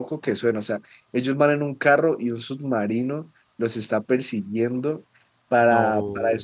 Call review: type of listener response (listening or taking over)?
listening